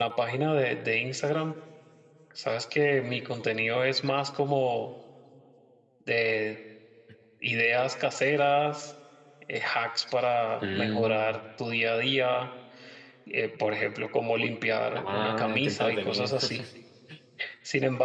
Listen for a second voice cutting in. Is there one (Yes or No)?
Yes